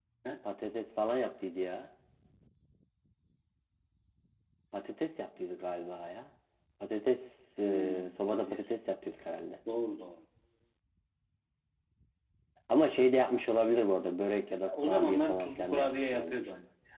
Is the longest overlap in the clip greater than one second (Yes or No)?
Yes